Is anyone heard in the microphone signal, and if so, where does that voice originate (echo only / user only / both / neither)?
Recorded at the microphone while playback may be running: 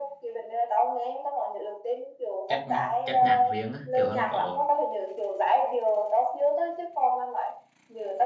both